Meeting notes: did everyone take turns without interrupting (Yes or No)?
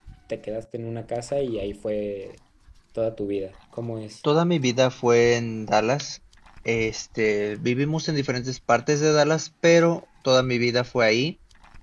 Yes